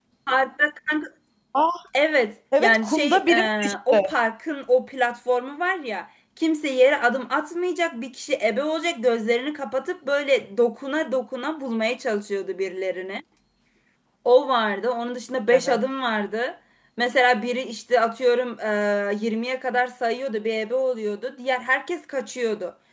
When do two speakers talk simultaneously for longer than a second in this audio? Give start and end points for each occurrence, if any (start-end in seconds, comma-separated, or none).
2.6-4.1